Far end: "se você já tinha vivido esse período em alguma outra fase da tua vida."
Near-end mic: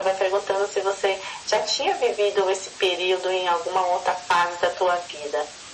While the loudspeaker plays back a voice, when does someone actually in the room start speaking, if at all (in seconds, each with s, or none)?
none